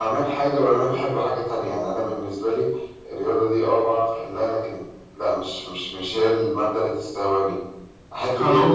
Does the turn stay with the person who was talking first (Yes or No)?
Yes